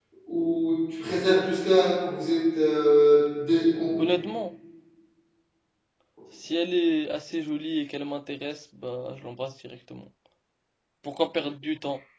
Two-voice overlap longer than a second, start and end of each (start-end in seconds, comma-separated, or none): none